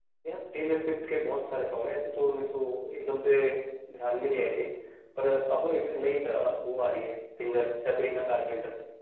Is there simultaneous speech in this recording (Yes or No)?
No